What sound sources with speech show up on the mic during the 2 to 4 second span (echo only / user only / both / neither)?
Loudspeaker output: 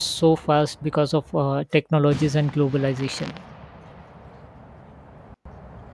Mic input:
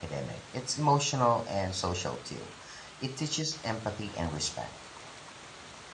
user only